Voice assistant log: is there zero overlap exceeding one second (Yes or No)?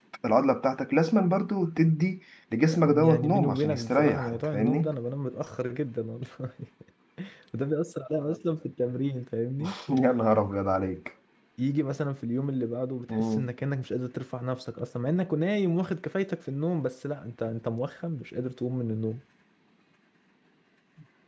No